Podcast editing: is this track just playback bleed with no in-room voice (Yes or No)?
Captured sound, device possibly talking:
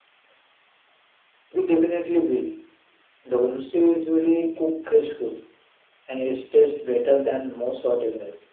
Yes